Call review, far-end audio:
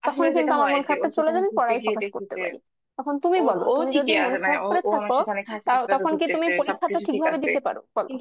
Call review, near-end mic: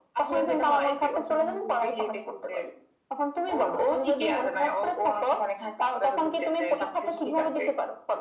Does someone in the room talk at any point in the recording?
No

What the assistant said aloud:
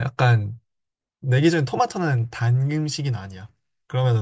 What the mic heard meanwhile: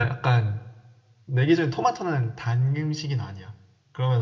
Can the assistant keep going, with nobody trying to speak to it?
Yes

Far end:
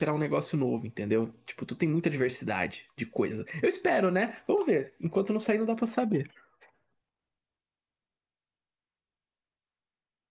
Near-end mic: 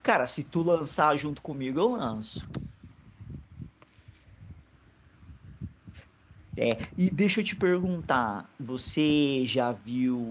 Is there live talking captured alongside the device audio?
Yes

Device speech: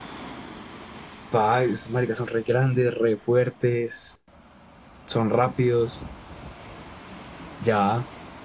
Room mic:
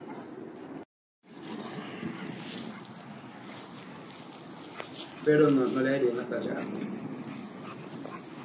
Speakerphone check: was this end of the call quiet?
No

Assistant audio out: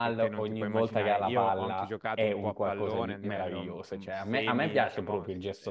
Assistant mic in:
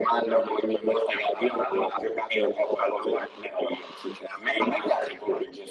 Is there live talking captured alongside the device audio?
No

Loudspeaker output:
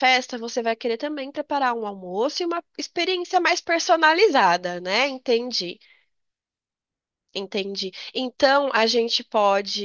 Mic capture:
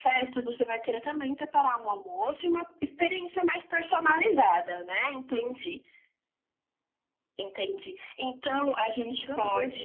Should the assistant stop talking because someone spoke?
Yes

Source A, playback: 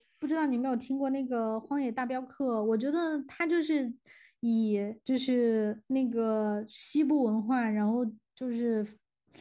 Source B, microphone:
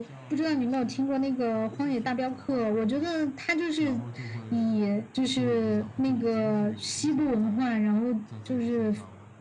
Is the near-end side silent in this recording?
No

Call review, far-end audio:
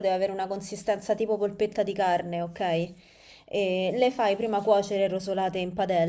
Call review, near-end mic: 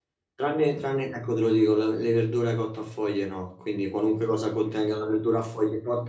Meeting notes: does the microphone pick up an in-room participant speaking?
Yes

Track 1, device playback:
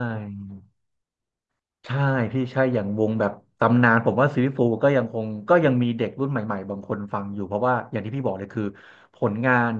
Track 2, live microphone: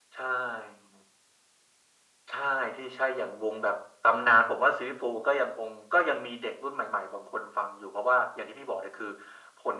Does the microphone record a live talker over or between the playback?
No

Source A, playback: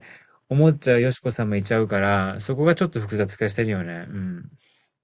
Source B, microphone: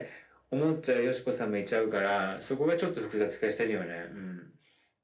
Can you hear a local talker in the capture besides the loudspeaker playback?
No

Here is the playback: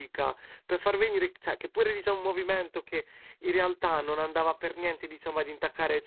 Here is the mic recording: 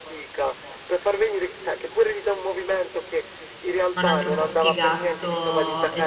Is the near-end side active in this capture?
Yes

